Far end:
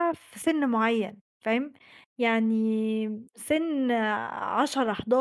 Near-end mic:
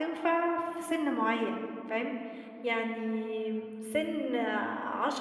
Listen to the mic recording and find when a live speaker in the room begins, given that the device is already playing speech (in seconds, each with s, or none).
none